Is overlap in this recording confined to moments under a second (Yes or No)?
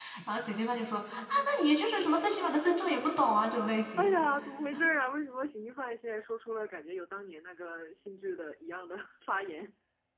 Yes